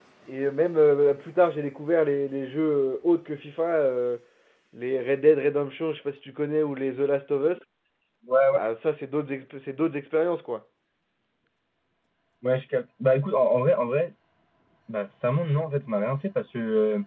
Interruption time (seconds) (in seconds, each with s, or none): none